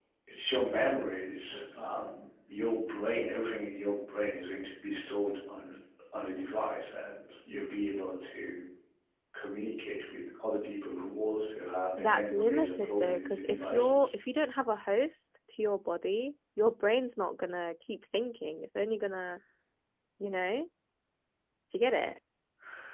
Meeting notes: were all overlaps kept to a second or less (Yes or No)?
No